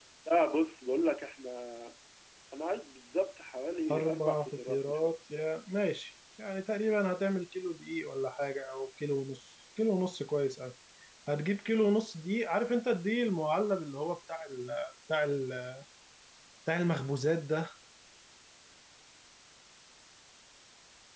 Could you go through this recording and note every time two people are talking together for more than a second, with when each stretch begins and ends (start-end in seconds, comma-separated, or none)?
3.9-5.2